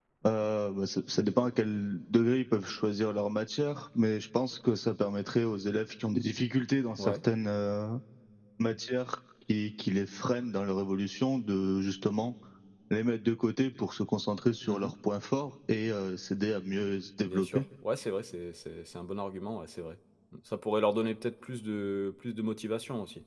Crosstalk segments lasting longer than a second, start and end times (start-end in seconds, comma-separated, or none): none